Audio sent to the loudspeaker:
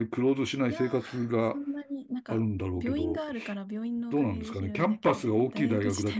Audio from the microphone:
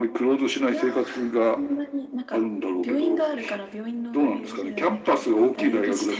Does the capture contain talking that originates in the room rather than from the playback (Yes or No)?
No